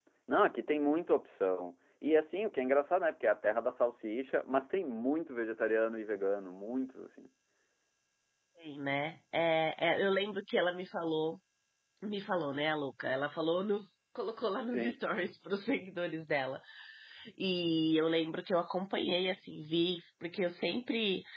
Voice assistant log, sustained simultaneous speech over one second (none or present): none